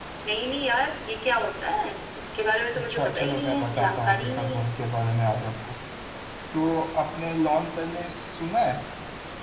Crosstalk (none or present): present